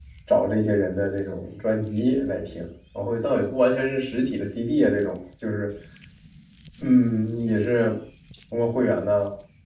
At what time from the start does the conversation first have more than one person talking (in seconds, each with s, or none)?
none